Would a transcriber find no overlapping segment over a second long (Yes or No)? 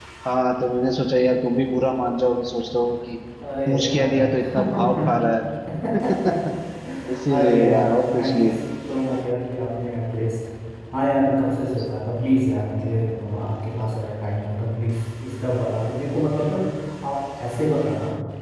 No